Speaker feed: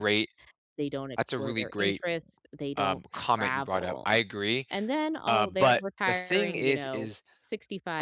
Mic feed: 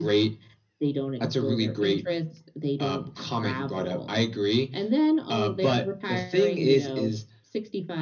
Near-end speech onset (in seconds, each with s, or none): none